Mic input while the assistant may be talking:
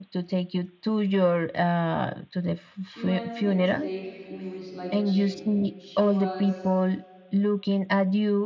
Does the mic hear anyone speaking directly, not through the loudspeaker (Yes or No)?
Yes